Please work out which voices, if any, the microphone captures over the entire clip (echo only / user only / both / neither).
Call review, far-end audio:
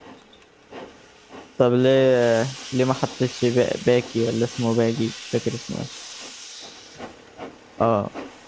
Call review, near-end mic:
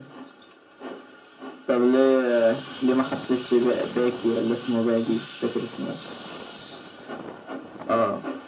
echo only